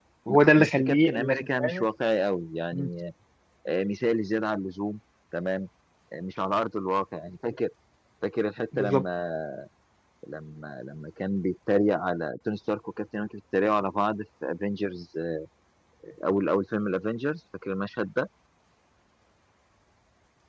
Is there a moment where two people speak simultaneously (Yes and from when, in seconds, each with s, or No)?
Yes, from 0.6 s